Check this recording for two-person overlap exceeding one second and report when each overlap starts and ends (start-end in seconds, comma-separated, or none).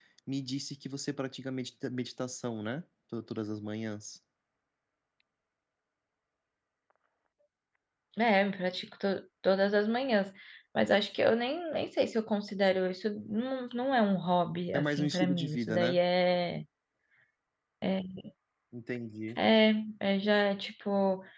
14.7-16.0